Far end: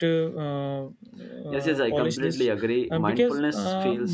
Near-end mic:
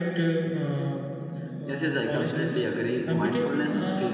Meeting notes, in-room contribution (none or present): none